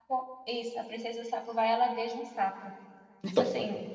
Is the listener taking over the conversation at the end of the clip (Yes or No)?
Yes